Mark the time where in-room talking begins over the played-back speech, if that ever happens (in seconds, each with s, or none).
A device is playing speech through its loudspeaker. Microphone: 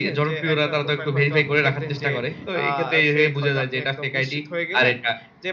none